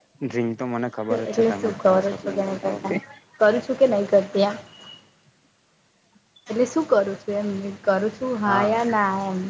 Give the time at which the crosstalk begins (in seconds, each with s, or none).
1.3 s